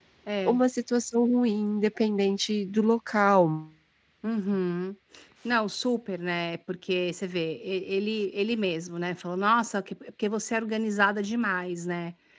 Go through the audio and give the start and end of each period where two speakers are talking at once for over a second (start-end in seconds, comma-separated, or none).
none